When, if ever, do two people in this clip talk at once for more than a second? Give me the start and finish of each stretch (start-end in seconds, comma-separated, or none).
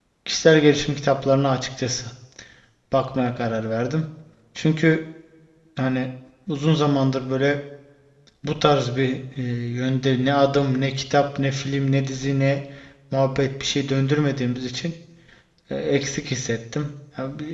none